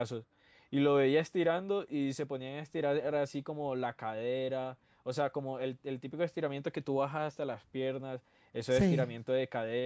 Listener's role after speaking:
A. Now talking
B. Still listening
B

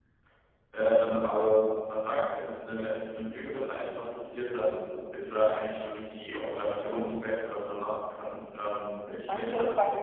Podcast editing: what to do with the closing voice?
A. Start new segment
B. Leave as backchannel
A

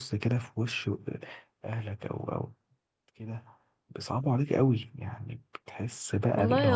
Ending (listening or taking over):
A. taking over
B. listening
A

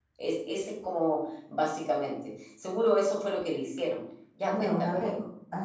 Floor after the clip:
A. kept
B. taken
B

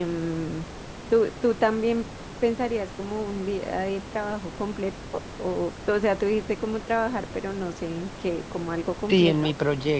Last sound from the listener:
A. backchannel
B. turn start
B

